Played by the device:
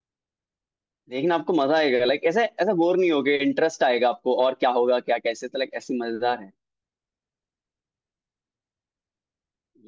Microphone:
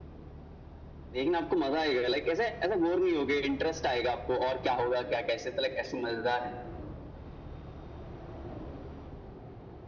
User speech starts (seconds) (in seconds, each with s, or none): none